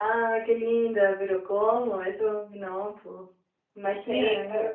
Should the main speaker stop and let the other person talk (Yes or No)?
Yes